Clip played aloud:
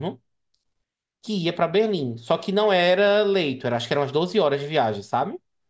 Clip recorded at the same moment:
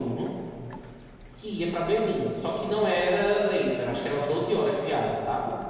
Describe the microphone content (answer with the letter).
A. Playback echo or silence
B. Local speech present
A